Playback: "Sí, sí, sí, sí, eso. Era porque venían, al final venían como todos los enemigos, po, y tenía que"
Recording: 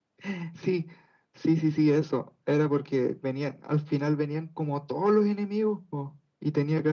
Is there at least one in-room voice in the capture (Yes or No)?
No